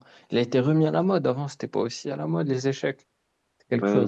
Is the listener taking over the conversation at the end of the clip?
Yes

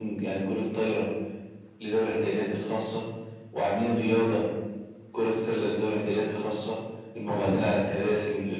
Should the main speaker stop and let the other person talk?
No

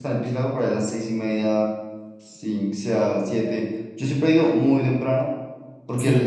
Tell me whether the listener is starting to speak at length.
No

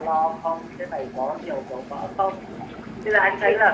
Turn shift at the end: No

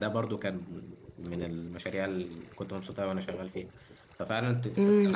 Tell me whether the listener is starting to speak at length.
Yes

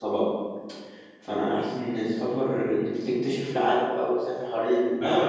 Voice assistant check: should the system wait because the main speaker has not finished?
No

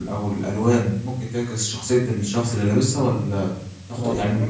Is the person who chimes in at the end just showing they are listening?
Yes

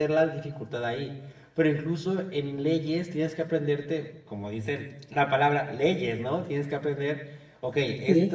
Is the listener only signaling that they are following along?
Yes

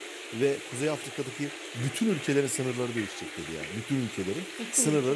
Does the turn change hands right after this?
No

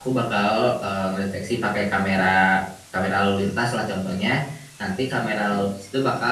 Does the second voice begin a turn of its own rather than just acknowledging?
No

